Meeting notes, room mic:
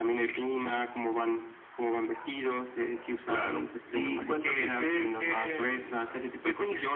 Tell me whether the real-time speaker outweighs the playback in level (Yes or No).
No